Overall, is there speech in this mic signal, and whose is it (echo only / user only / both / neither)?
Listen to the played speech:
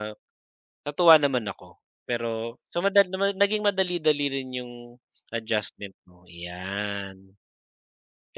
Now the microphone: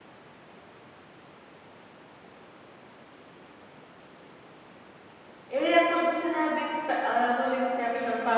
user only